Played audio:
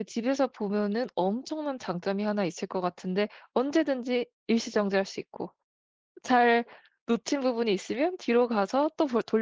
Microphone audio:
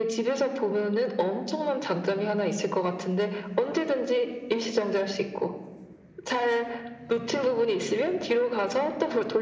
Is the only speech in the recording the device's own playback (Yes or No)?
Yes